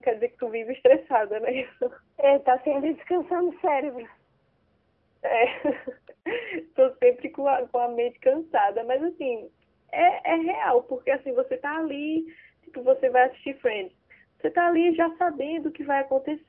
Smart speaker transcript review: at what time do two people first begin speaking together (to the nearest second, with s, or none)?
none